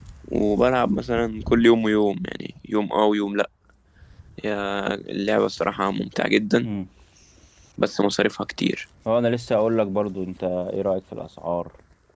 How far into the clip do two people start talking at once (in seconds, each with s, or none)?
none